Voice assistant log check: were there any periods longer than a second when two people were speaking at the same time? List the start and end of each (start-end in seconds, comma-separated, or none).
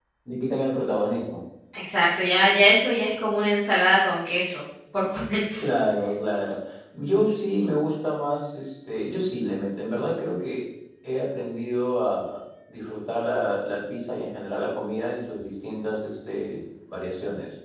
none